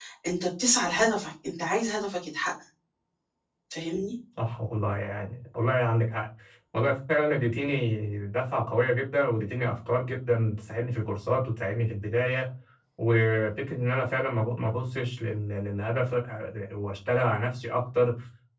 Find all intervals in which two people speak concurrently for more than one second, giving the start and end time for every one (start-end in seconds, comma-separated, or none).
none